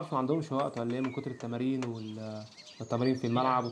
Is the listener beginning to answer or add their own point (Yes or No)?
Yes